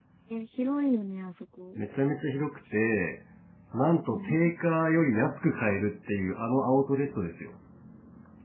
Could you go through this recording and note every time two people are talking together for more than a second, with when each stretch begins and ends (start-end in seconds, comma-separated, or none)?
none